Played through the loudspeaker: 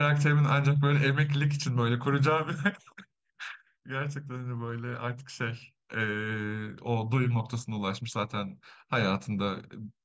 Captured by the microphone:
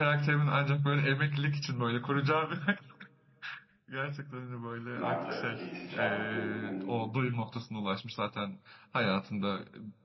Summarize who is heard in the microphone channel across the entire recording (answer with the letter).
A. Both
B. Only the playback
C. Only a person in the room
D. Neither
A